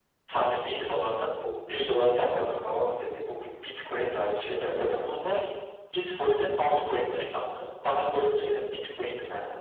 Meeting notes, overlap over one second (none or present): none